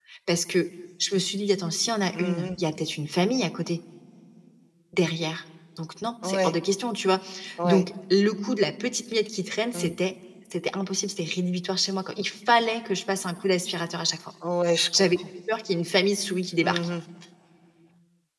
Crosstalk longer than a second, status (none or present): none